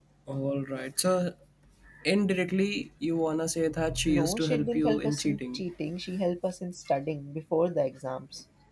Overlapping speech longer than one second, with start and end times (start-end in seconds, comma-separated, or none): 4.0-5.6